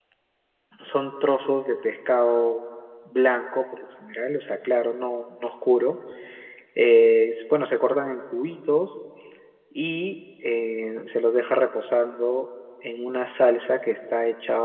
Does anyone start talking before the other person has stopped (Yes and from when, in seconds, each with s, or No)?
No